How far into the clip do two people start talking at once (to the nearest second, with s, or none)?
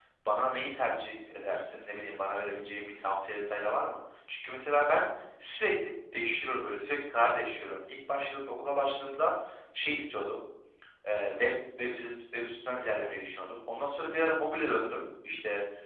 none